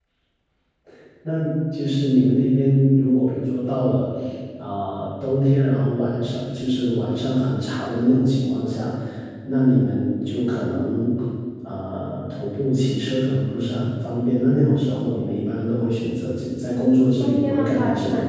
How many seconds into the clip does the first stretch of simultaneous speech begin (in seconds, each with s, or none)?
16.7 s